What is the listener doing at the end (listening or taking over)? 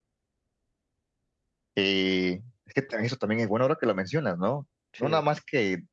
listening